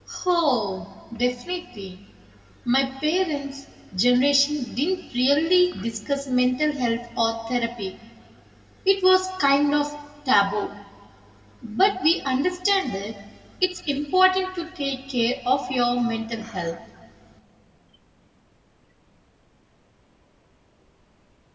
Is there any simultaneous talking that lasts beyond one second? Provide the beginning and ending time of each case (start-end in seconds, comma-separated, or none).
none